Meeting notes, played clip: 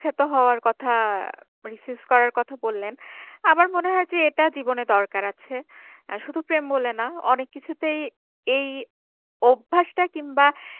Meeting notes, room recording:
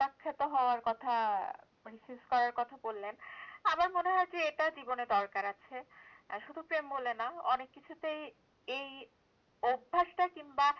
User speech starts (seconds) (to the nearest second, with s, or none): none